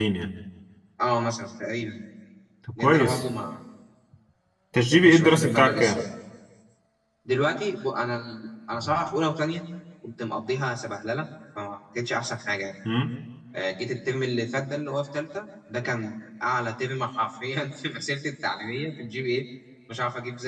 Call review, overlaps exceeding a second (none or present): present